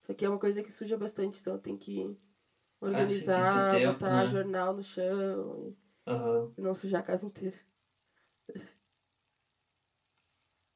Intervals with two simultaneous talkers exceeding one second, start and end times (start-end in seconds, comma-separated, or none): 2.9-4.4